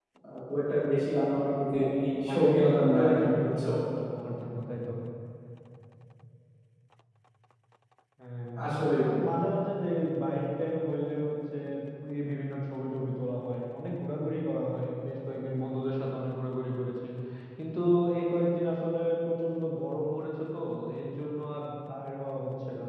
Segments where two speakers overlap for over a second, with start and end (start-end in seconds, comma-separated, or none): 2.3-3.6